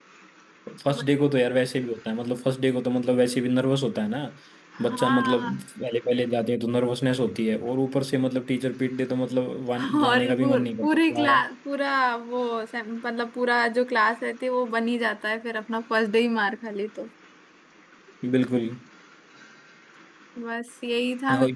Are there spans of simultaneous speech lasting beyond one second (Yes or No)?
Yes